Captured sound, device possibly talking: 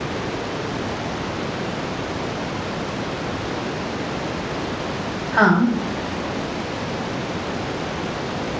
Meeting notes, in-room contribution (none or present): present